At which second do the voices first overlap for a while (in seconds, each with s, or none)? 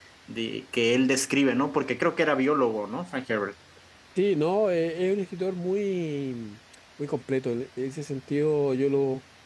none